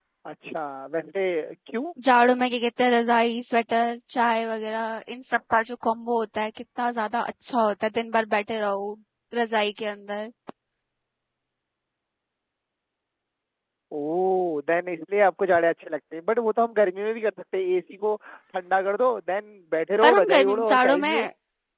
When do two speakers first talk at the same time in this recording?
20.0 s

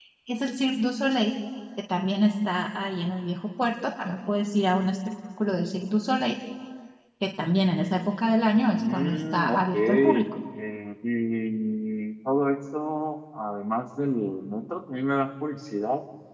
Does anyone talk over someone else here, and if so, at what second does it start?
8.8 s

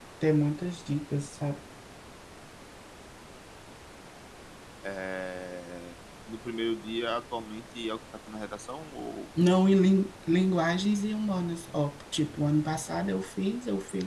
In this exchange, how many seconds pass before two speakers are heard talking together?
none

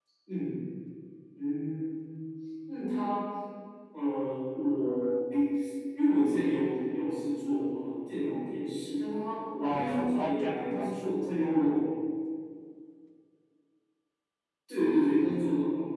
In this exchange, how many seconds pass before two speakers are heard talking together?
9.6 s

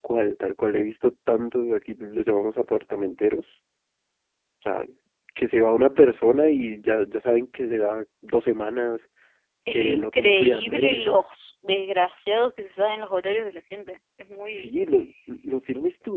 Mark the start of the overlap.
9.7 s

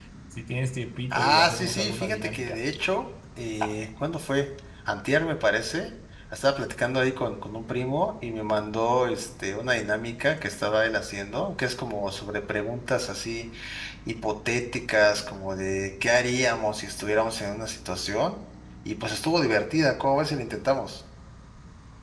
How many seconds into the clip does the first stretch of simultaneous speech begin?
1.1 s

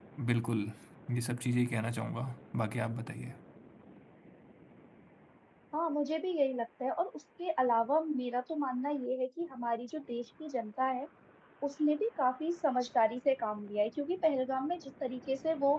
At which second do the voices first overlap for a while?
none

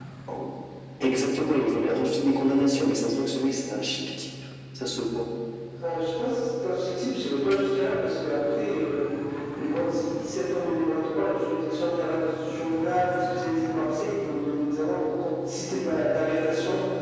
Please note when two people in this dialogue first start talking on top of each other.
none

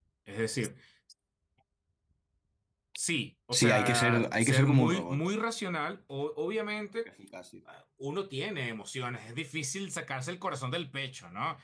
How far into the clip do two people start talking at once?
3.5 s

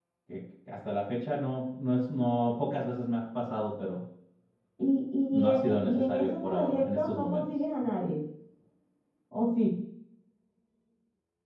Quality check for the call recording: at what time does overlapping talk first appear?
5.3 s

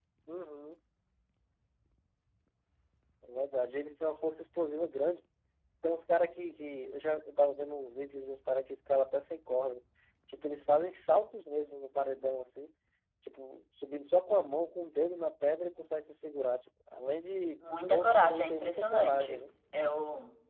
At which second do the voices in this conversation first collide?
17.6 s

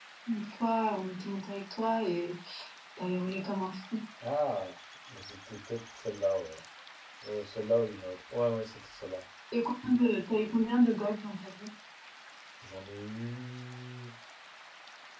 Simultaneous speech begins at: none

